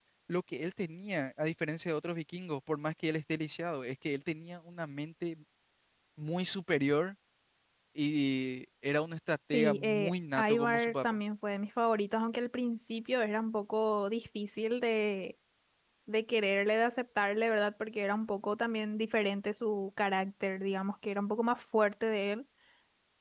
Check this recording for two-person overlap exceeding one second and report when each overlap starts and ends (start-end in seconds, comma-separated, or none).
9.5-11.0